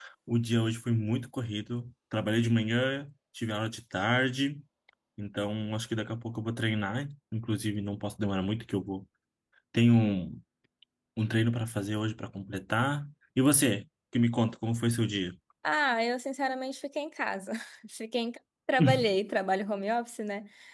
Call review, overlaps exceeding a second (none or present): none